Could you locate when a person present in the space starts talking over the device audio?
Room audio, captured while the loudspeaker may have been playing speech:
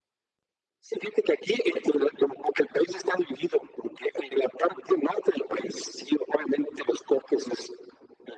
none

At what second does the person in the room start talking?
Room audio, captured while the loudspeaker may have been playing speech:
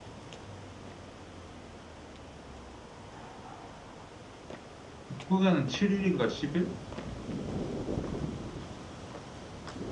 5.1 s

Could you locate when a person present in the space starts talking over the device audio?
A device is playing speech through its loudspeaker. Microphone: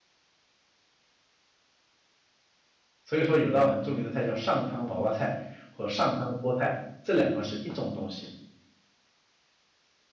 3.0 s

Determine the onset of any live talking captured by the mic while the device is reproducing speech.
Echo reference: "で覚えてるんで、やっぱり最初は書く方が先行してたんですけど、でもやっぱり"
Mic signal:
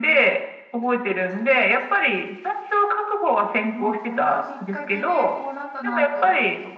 3.7 s

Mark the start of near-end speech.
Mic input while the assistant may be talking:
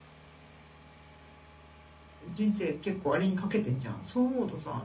2.2 s

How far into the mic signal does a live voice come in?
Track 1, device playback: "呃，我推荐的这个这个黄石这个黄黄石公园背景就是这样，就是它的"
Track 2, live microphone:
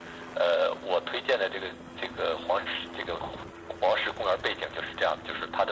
none

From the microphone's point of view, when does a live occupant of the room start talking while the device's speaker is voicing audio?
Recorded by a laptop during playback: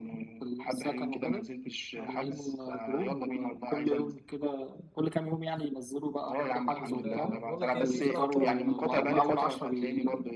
6.7 s

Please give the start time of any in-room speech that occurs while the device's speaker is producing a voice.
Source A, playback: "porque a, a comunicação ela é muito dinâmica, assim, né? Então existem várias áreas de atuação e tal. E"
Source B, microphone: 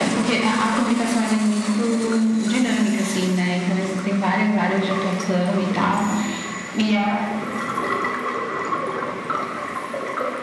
none

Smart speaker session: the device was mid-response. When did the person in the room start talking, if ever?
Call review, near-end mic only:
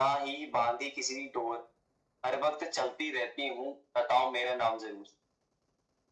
none

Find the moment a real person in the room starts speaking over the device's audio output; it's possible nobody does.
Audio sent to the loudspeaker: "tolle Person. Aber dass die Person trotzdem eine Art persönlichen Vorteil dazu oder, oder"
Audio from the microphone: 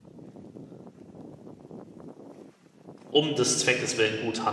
3.1 s

